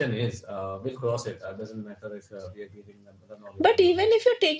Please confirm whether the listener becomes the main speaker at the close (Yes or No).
Yes